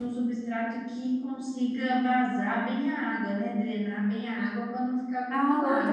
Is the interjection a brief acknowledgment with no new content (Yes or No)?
No